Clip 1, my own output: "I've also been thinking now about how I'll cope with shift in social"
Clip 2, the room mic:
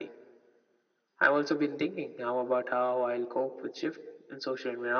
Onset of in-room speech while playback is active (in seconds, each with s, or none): none